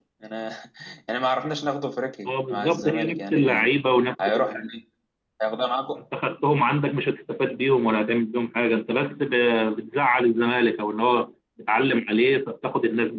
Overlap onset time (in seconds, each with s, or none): 2.3 s